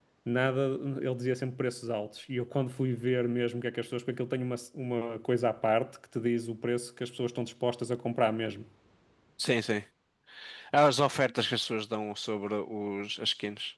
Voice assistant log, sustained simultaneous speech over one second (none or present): none